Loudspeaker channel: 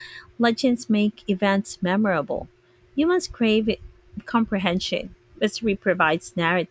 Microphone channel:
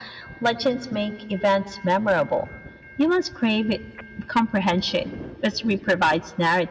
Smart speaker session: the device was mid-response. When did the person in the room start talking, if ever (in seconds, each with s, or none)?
none